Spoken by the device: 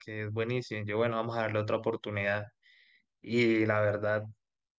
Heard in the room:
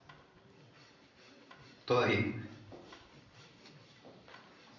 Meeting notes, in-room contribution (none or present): present